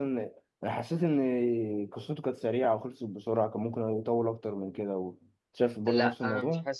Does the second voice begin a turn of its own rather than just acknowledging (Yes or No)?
Yes